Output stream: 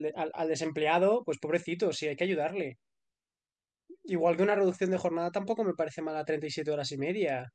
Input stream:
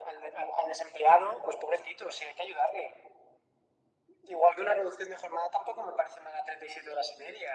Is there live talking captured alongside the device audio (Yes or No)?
No